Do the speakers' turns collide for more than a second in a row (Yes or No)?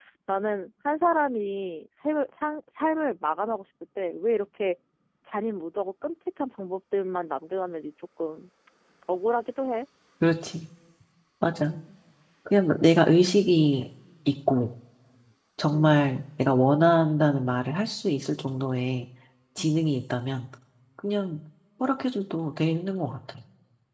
No